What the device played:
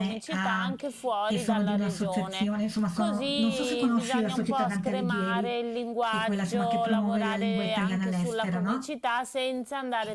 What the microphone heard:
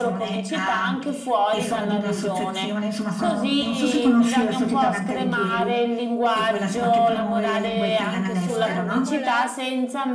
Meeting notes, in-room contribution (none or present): present